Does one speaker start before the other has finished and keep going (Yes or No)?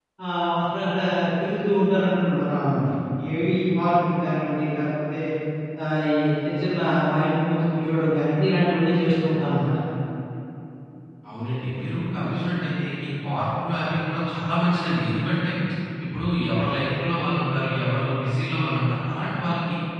No